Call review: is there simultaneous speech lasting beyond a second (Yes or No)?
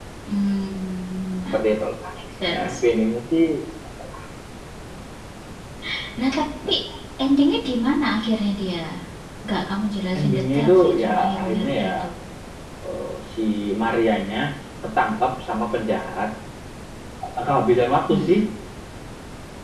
Yes